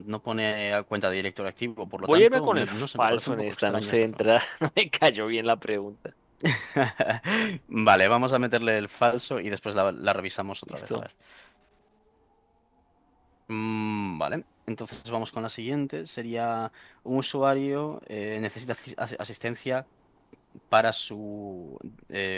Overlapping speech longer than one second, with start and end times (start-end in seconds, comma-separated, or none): 2.0-4.2